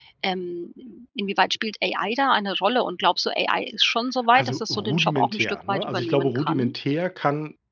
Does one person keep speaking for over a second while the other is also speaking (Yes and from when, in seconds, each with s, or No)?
Yes, from 4.4 s